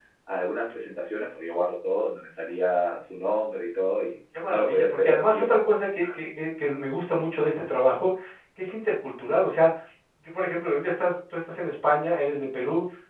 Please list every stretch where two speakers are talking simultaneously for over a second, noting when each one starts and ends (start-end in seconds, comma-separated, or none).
4.4-5.7